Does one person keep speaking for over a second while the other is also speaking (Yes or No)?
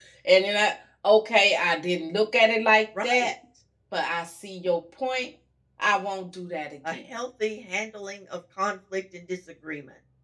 No